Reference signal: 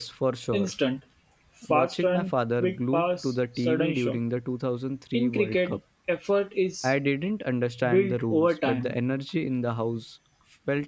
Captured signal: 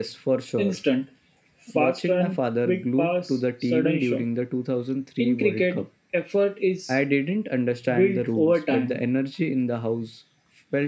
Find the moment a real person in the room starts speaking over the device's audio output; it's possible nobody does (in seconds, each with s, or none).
none